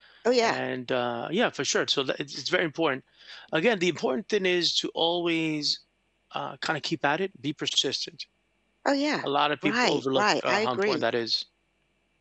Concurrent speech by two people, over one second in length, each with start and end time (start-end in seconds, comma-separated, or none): 9.6-11.0